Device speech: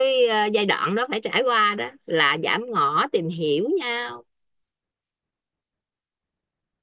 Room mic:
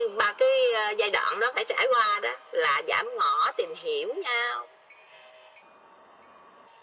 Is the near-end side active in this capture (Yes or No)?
No